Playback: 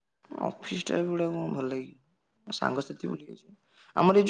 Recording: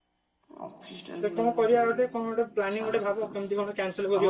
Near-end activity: present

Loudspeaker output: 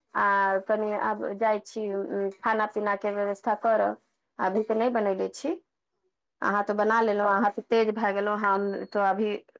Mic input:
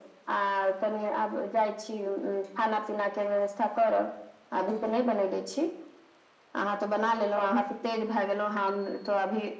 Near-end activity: none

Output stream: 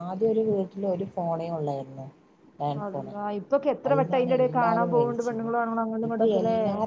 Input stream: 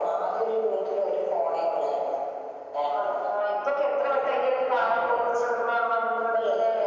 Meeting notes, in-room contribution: none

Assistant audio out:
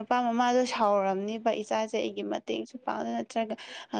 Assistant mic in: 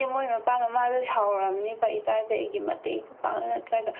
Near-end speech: none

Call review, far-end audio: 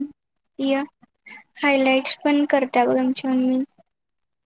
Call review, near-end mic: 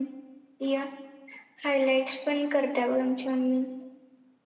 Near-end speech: none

